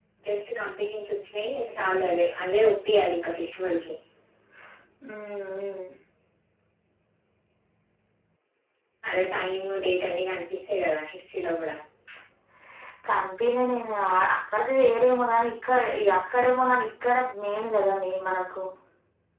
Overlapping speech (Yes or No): No